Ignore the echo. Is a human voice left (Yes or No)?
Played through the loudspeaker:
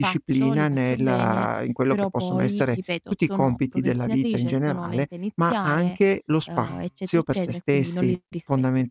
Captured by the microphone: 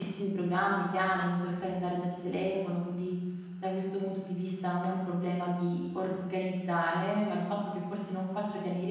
Yes